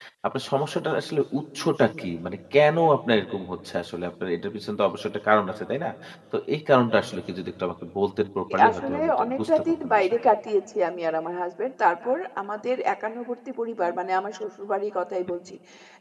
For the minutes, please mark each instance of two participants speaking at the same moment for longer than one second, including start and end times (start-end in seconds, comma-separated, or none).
8.5-10.2